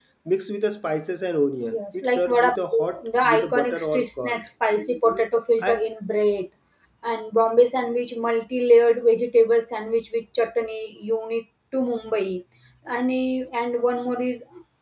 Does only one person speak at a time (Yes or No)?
No